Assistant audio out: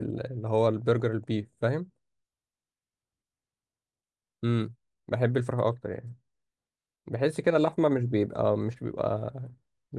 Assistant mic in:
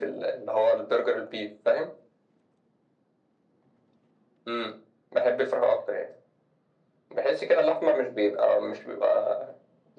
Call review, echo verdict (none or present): present